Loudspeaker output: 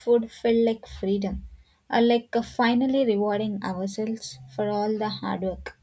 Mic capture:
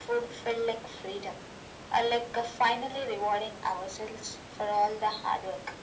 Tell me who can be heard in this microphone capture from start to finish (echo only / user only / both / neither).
echo only